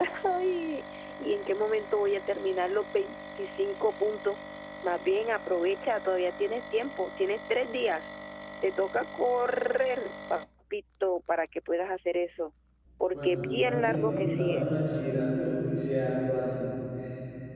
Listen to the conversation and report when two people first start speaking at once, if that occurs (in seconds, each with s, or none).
13.1 s